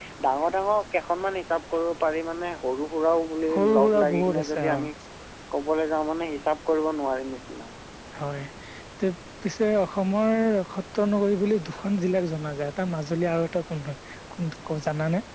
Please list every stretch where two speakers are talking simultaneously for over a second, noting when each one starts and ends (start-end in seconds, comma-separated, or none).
3.5-4.8